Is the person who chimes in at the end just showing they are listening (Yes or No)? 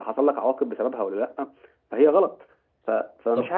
Yes